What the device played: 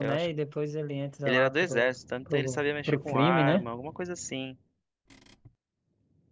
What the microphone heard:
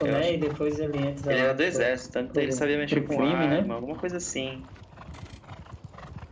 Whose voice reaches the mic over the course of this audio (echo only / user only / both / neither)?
echo only